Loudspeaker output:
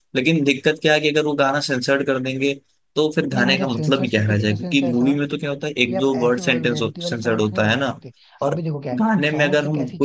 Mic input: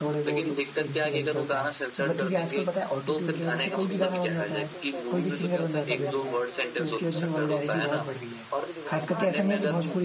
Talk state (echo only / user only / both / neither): both